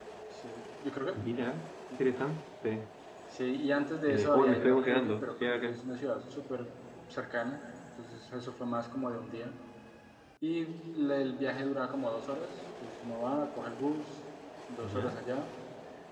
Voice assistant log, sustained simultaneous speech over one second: present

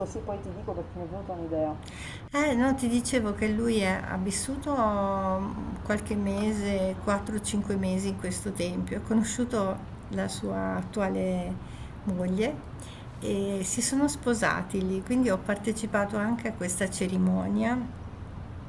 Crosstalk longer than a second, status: none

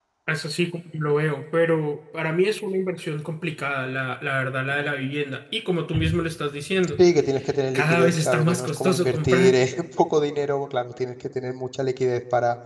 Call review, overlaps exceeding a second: present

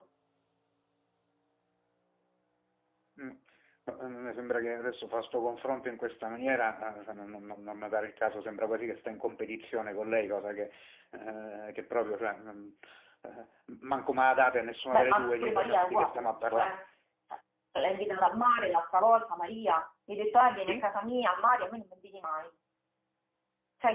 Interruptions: present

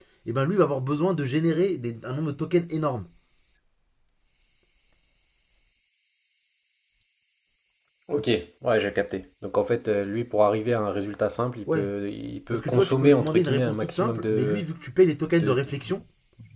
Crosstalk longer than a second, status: present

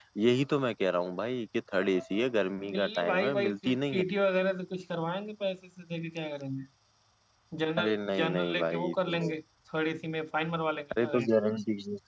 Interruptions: present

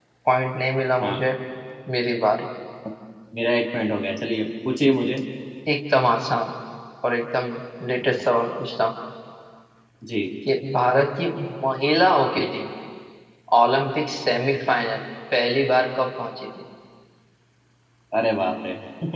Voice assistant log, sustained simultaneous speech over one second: none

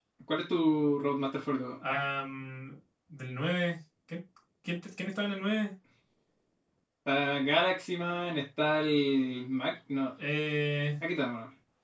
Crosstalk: none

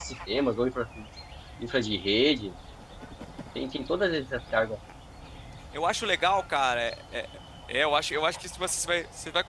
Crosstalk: none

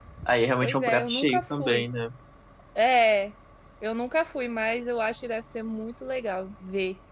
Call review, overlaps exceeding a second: present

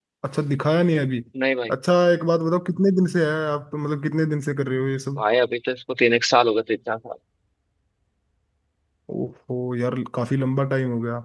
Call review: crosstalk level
none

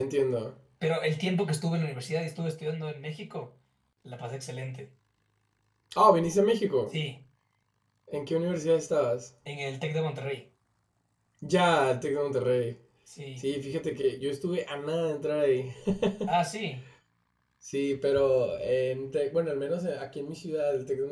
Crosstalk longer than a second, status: none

